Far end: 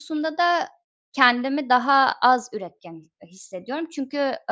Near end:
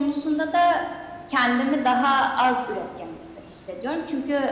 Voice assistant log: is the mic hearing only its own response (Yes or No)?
Yes